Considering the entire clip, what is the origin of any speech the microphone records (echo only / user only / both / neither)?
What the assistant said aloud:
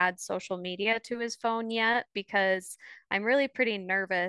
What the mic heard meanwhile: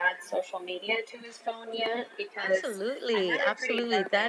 both